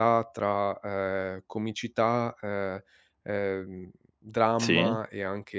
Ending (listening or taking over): listening